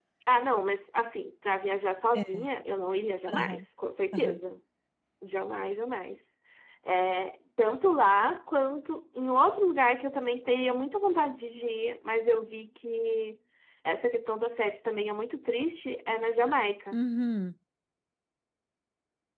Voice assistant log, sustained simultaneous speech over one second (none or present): none